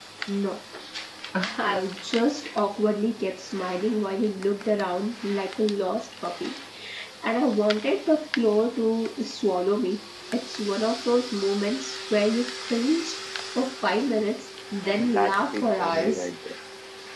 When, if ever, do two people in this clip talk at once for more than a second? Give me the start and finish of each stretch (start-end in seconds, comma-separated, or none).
15.0-16.3